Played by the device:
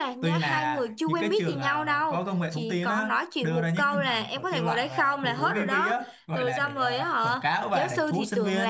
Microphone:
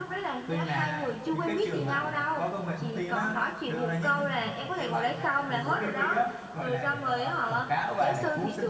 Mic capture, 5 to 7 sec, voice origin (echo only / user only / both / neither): echo only